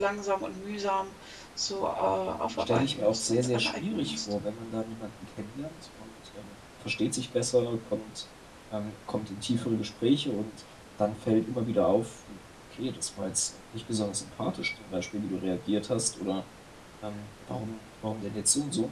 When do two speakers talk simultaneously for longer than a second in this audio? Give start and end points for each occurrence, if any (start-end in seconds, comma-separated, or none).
2.6-4.3